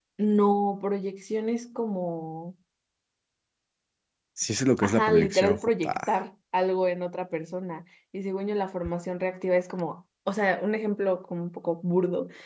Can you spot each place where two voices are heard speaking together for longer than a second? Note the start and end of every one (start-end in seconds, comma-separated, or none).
4.8-6.1